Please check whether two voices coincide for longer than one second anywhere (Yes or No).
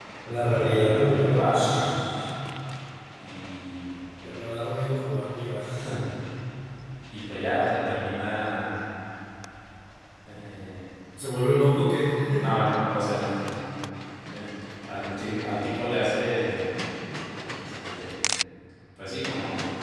Yes